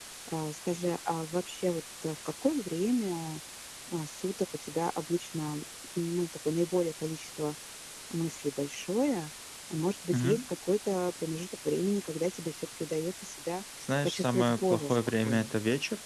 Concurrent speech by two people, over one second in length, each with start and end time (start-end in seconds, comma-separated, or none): 14.0-15.5